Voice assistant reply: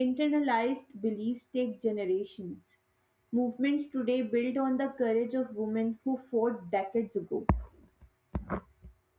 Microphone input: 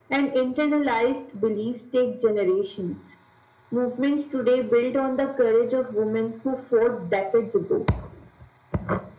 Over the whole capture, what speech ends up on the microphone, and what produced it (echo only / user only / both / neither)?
echo only